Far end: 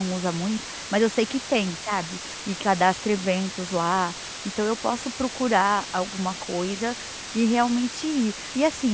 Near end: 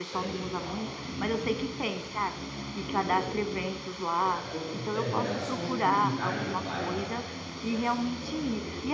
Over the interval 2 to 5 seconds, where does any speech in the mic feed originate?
both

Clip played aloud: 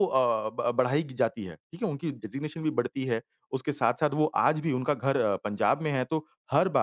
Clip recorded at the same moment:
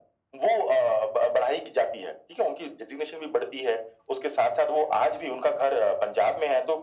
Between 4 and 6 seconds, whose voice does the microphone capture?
echo only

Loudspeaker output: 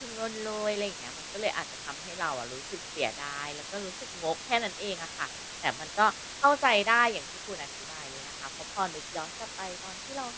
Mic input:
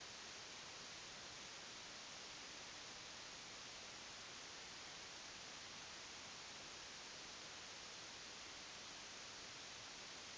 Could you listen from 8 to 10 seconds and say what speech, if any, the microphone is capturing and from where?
neither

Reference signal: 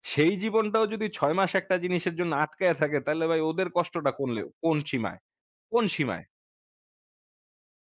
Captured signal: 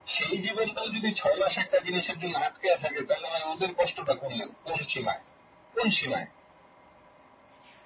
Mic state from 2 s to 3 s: echo only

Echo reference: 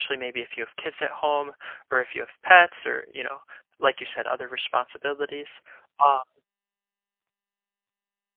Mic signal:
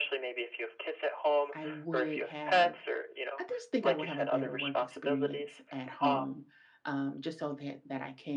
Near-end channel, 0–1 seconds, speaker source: echo only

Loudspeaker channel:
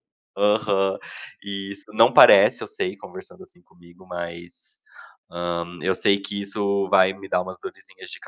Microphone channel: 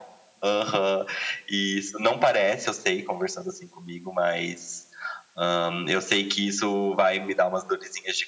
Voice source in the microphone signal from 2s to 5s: echo only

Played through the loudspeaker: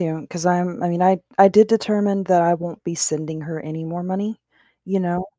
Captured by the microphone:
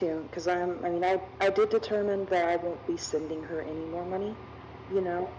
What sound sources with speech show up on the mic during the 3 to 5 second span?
echo only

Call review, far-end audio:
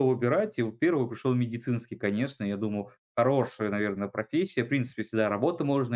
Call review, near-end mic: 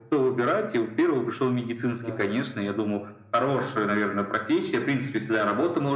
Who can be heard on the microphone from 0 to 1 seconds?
echo only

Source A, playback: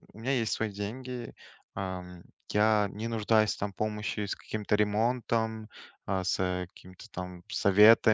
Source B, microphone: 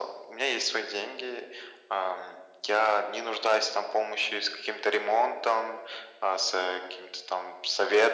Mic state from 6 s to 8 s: echo only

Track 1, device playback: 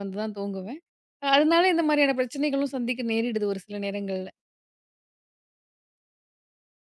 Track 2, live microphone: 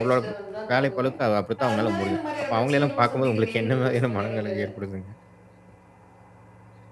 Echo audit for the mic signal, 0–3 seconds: both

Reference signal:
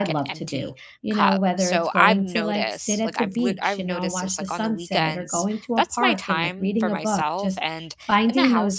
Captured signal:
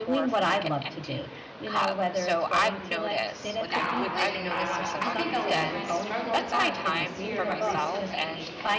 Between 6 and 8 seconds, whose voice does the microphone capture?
both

